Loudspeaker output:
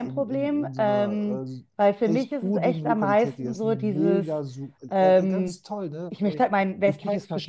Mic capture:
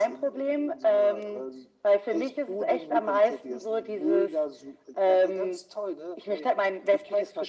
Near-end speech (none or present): none